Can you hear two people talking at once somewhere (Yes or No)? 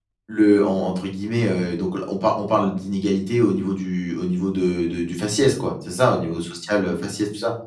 No